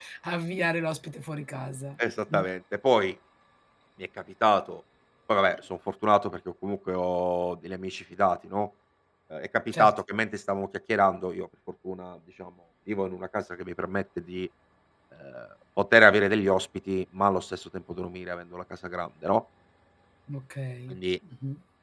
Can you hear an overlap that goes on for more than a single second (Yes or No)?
No